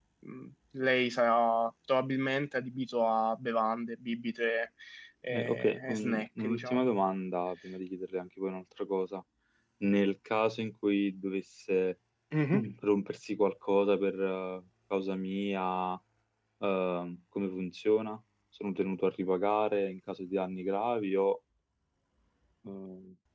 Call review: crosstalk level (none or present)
present